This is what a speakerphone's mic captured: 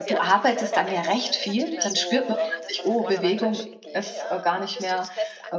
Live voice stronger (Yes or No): Yes